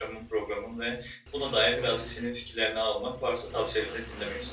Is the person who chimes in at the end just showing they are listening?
No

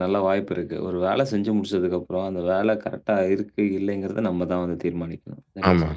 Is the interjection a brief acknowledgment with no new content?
No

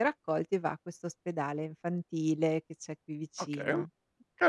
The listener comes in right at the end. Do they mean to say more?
Yes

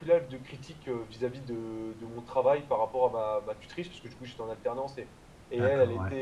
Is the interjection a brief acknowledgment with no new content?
Yes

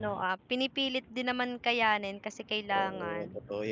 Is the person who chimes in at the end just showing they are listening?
No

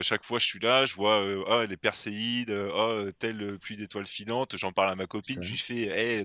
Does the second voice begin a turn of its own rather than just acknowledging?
No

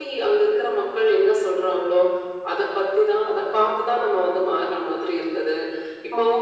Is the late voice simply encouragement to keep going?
Yes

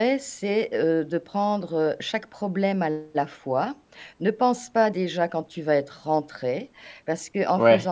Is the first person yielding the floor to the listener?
No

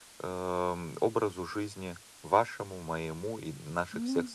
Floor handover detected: No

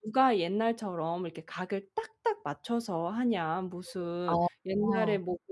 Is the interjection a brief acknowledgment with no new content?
Yes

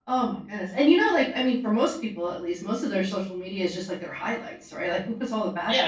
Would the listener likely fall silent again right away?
No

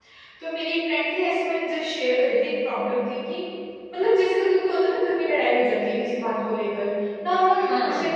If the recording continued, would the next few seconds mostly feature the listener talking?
No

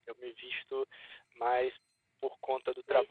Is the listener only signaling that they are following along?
Yes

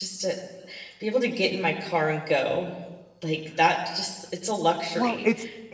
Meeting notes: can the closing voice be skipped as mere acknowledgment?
No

